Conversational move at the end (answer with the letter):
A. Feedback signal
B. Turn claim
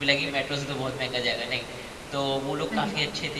A